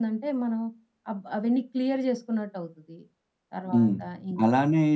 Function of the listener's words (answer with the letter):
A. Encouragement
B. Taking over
B